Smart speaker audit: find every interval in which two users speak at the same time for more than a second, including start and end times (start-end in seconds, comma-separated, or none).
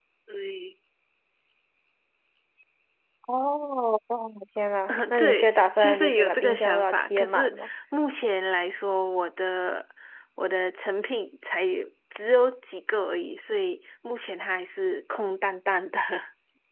4.9-7.7